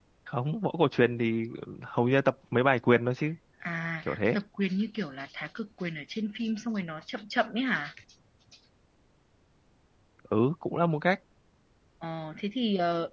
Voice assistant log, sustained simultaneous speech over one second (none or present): none